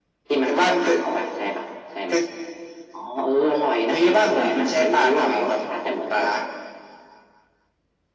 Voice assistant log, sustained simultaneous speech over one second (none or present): present